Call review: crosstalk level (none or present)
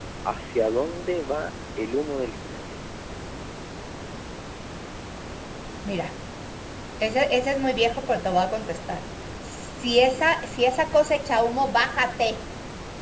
none